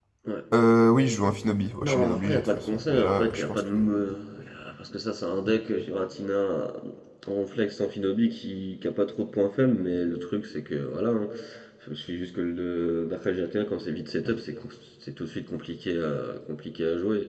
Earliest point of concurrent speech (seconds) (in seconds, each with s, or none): 1.8 s